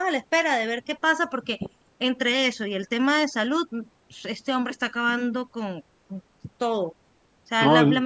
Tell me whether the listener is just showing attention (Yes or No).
Yes